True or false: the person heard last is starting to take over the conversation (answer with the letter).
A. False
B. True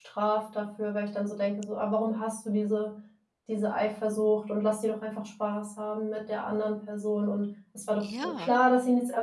A